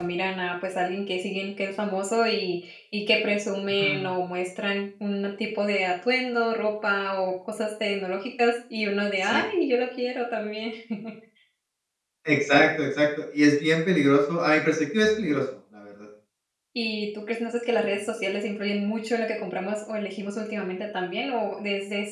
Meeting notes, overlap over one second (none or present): none